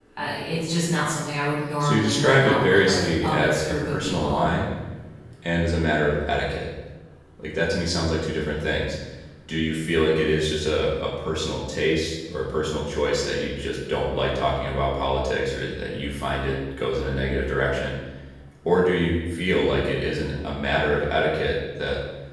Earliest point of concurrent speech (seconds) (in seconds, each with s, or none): 1.8 s